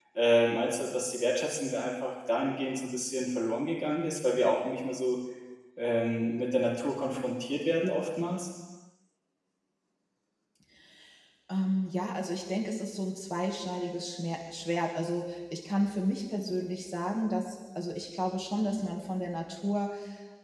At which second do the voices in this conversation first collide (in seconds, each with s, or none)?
none